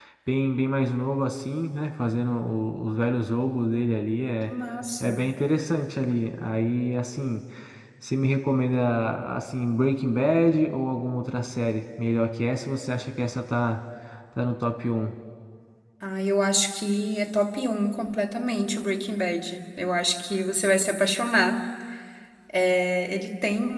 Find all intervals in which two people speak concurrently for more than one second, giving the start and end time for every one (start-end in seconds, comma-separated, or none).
none